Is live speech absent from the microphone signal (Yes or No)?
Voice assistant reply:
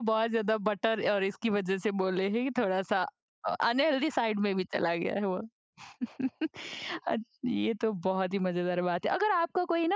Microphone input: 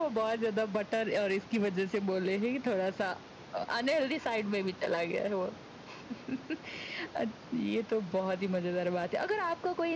Yes